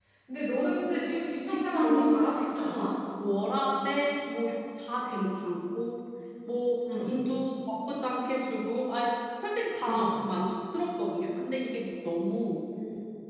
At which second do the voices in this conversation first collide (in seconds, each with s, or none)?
1.5 s